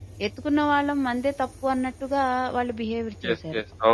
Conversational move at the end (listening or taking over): taking over